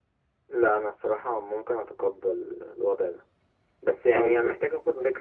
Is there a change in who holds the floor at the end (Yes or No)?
No